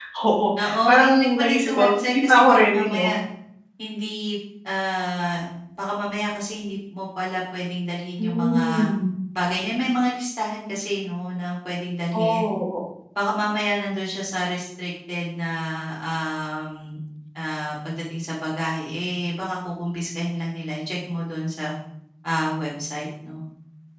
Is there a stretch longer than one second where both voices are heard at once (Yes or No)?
Yes